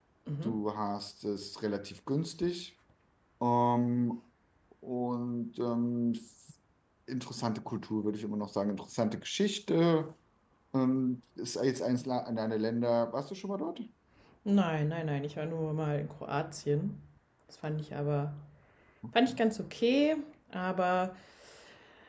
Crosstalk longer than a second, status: none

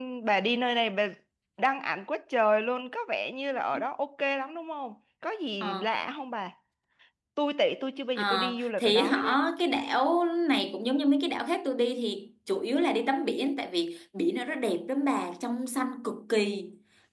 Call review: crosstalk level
present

